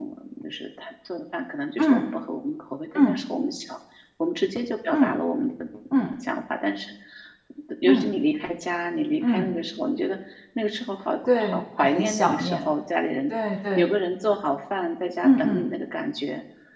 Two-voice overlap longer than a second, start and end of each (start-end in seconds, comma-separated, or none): 11.4-12.6